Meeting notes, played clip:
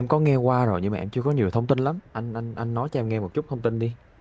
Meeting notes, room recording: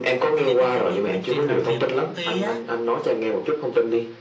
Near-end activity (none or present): present